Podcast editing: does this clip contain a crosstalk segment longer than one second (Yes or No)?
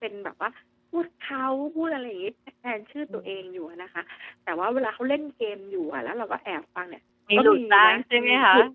Yes